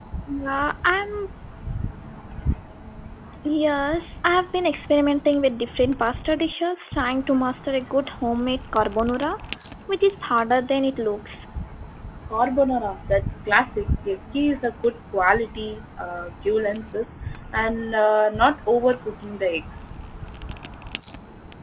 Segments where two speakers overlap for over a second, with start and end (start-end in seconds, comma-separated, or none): none